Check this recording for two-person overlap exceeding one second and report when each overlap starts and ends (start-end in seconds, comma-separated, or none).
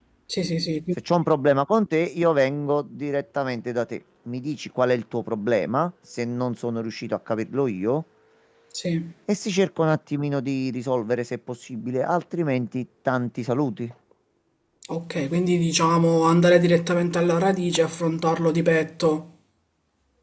none